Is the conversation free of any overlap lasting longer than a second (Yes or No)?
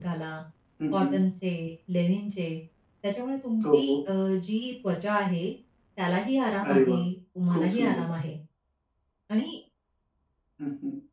Yes